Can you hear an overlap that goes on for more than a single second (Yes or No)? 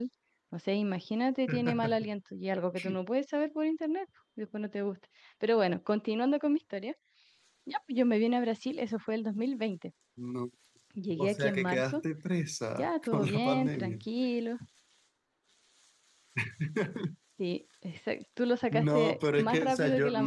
Yes